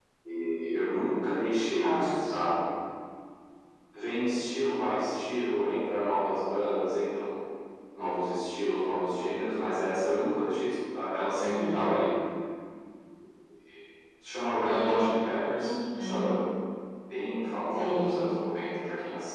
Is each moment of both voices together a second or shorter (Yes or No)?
No